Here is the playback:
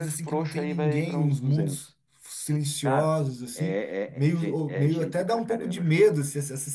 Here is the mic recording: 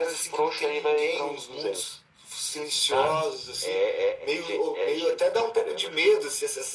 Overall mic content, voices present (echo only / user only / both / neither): echo only